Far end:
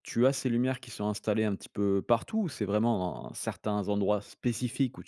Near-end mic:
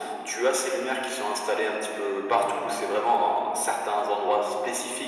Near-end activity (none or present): none